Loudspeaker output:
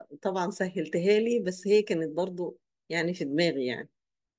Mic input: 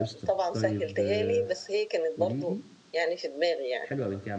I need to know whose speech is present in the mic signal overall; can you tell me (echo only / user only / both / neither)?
both